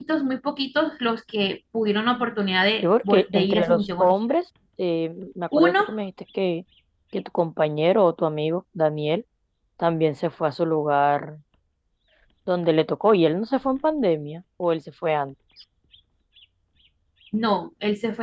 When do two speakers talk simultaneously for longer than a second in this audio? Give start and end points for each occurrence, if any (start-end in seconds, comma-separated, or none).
2.8-4.1